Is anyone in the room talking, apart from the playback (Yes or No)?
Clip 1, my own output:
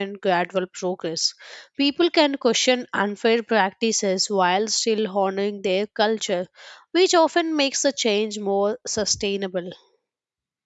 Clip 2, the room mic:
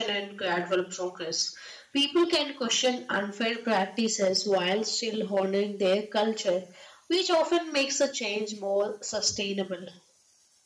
No